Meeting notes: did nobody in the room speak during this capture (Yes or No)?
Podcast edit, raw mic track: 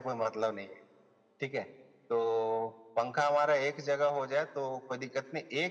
Yes